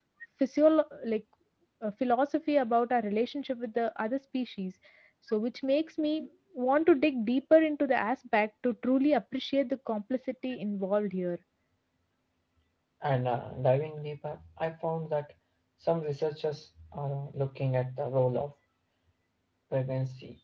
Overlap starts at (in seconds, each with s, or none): none